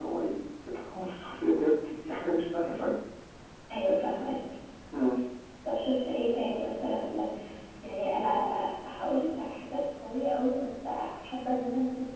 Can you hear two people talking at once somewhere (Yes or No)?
No